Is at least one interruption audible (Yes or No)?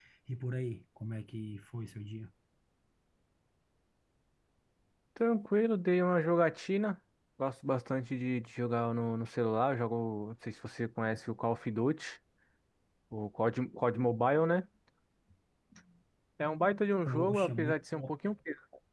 Yes